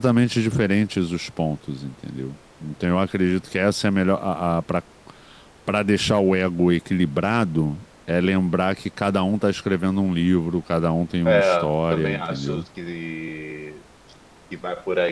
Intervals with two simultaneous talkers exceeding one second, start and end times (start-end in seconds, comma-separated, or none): 11.2-12.6